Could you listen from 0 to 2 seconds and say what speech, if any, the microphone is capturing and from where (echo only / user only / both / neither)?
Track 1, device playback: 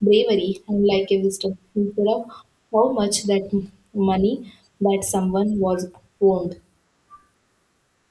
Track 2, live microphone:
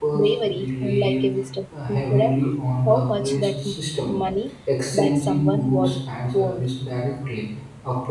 both